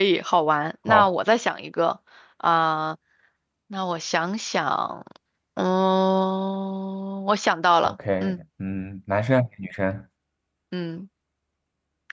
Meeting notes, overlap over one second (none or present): none